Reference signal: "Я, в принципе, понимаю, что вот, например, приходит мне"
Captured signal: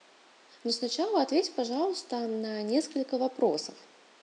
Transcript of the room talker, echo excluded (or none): но сначала ответь, пожалуйста, на несколько вопросов.